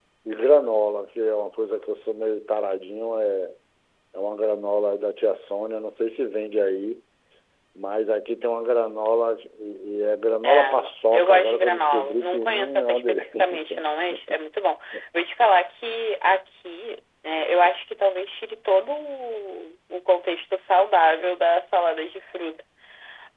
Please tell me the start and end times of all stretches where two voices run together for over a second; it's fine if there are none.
11.1-13.8

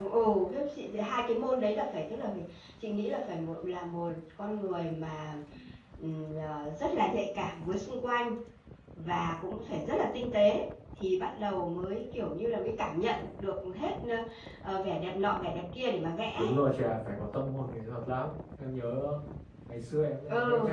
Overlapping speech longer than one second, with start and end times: none

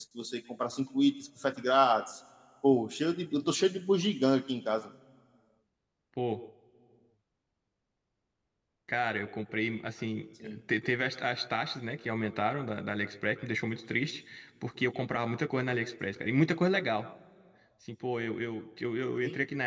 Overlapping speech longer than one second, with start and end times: none

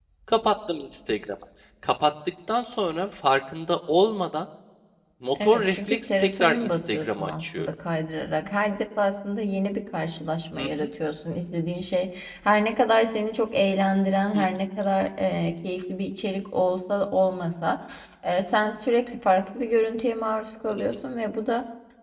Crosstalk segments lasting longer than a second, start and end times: 5.4-7.7

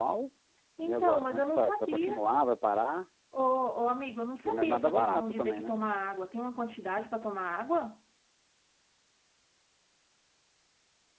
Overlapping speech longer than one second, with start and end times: 0.8-2.1, 4.4-5.8

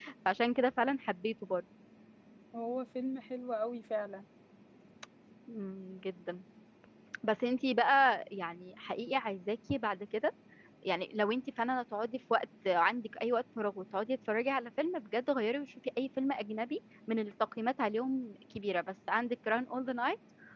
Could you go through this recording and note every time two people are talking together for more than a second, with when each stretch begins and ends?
none

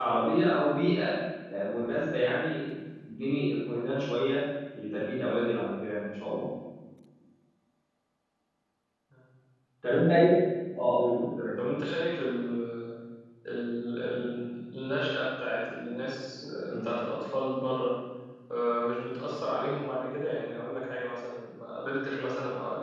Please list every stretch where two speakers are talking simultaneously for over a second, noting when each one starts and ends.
none

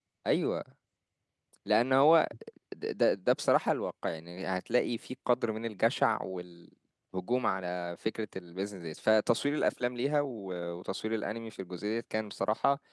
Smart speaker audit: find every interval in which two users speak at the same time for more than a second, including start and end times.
none

